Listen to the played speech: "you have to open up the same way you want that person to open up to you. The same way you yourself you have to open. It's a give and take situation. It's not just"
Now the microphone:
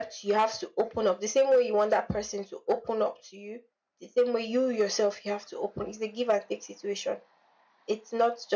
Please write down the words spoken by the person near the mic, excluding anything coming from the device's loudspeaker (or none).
none